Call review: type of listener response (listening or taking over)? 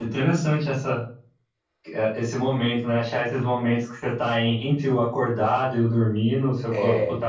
listening